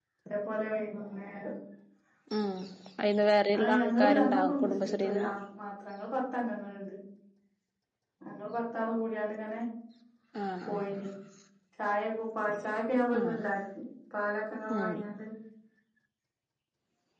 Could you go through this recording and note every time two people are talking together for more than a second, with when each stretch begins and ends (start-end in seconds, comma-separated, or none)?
3.6-5.3